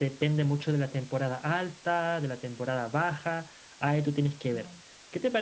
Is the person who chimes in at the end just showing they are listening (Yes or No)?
Yes